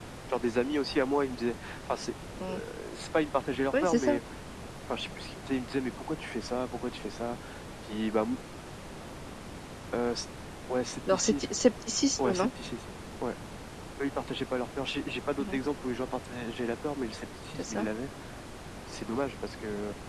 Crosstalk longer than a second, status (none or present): none